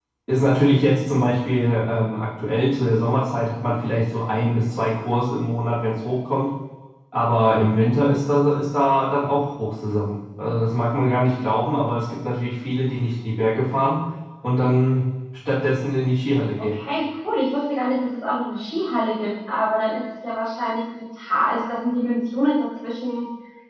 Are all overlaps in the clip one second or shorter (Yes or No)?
Yes